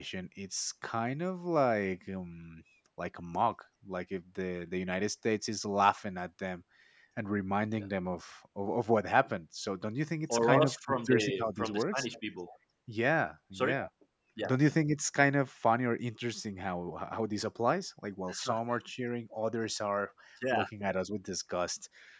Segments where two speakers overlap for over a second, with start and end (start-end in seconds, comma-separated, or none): 10.3-12.1